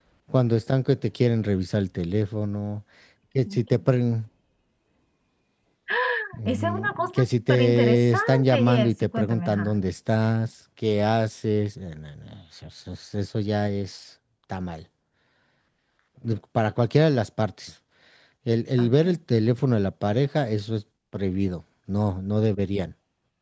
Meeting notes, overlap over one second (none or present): present